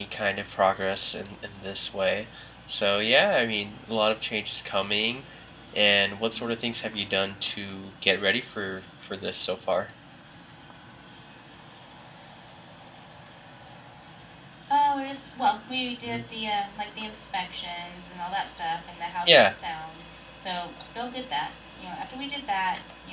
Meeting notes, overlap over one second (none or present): none